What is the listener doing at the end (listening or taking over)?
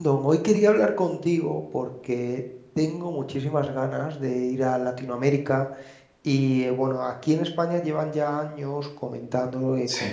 listening